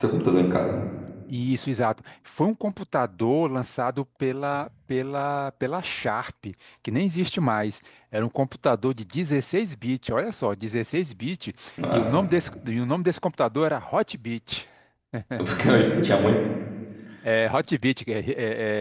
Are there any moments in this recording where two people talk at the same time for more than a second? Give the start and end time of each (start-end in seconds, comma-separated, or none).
none